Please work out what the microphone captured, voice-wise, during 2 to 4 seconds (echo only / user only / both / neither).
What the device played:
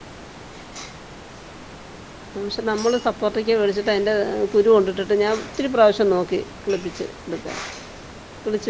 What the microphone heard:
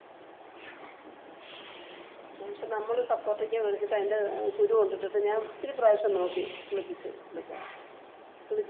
echo only